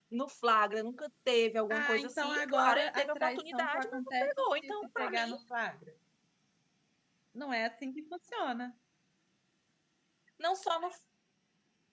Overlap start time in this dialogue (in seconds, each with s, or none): 1.7 s